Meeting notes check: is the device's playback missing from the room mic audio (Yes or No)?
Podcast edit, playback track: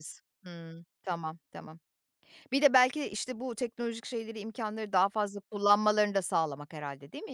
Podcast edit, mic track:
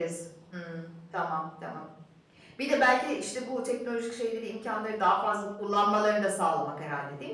No